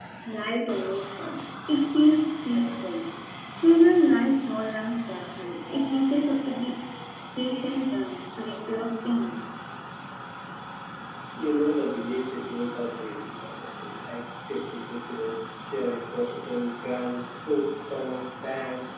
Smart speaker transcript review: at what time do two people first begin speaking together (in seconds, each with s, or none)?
none